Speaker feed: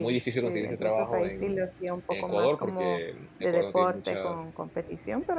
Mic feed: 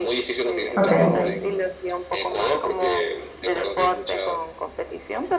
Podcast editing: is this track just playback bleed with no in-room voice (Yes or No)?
No